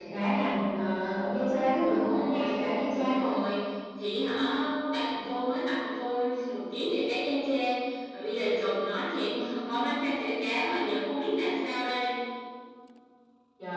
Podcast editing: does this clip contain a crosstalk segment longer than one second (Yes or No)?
Yes